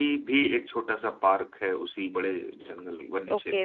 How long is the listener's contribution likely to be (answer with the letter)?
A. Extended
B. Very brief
A